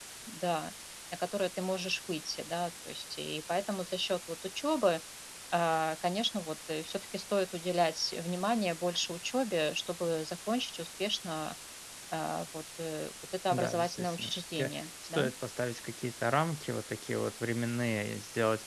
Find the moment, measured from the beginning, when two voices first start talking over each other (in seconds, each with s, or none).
13.5 s